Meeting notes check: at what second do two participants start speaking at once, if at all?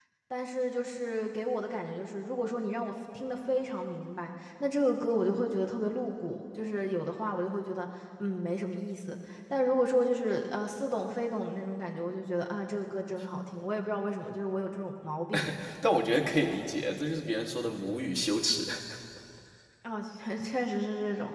none

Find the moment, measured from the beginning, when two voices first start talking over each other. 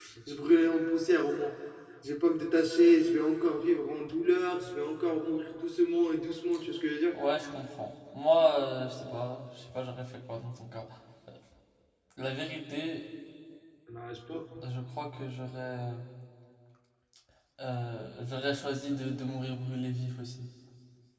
none

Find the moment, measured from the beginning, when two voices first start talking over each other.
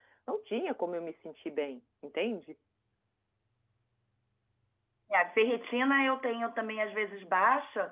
none

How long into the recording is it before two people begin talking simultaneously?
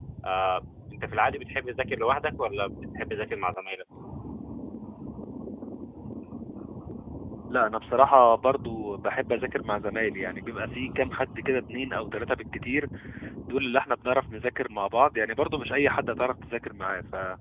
none

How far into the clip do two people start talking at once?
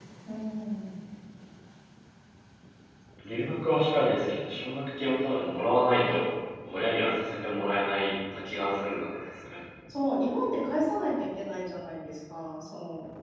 none

